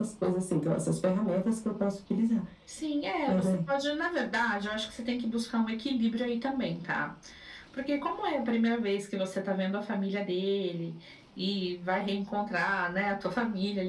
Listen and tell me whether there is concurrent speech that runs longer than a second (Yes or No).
No